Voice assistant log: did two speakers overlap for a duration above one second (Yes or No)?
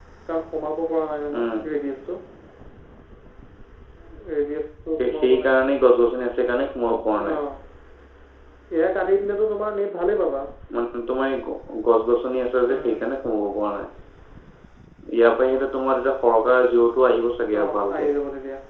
No